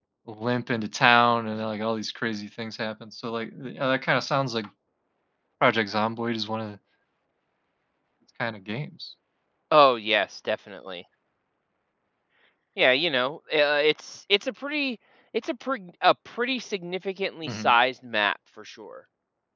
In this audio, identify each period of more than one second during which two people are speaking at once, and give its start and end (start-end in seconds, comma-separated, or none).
none